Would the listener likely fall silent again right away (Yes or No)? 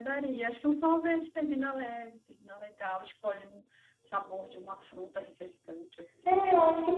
No